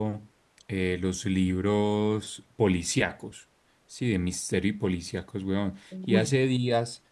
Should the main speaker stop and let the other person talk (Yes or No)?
No